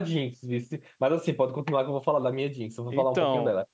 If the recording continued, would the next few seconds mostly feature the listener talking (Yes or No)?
Yes